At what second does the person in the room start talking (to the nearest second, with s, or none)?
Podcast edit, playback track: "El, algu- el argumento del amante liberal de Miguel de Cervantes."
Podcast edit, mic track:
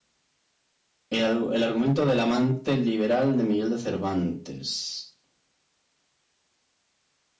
none